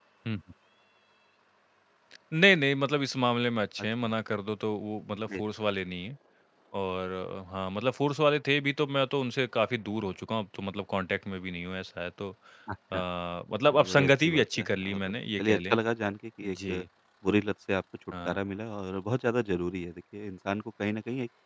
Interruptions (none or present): present